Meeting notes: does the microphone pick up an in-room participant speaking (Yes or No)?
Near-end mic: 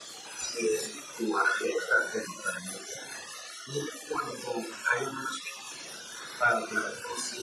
No